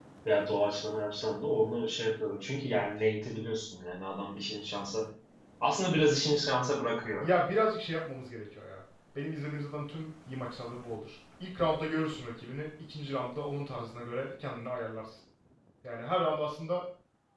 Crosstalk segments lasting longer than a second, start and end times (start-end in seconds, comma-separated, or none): none